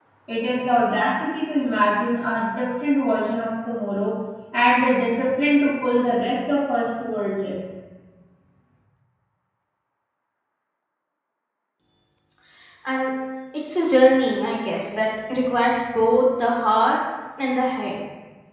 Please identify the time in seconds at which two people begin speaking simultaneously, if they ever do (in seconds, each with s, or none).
none